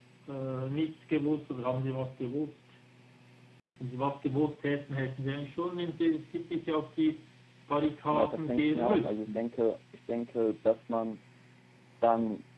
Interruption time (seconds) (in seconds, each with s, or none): 8.1 s